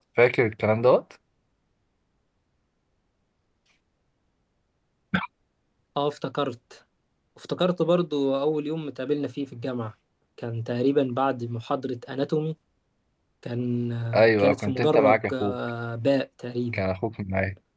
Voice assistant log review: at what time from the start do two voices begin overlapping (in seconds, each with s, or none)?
14.2 s